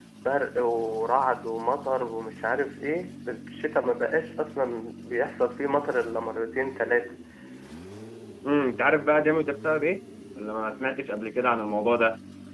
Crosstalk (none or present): none